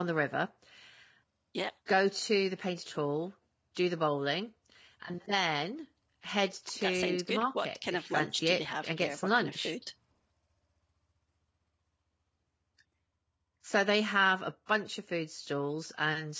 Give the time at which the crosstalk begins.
6.8 s

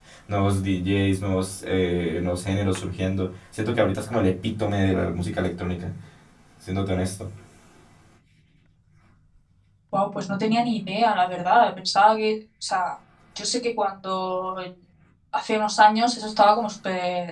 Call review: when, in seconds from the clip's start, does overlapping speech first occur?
none

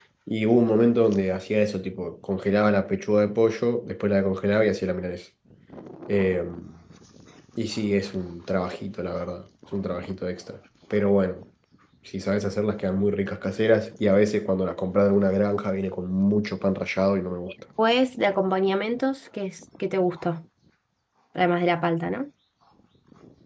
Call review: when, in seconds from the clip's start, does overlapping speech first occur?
none

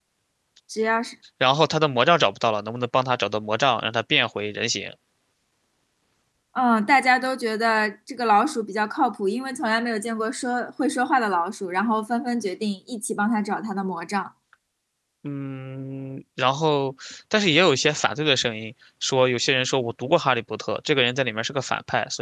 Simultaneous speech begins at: none

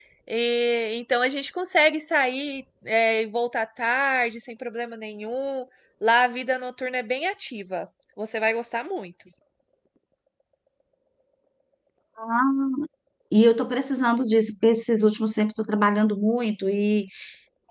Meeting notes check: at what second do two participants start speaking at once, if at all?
none

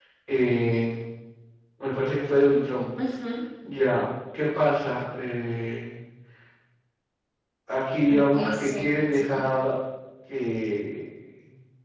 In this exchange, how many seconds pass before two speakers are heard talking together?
8.1 s

